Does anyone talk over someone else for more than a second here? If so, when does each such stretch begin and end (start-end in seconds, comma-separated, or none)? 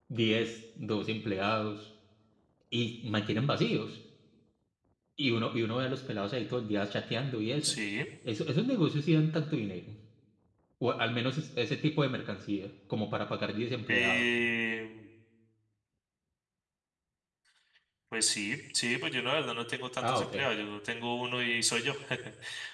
none